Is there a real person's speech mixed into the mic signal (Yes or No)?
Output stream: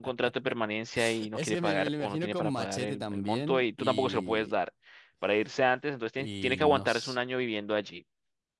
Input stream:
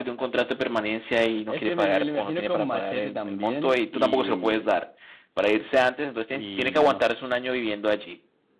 No